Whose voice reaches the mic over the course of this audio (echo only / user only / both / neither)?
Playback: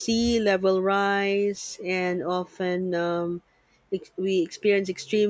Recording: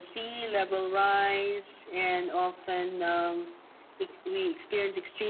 echo only